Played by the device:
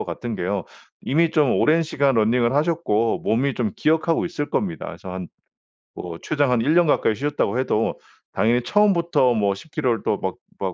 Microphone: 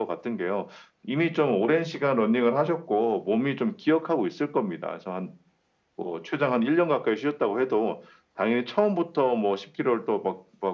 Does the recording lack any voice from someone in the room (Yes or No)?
Yes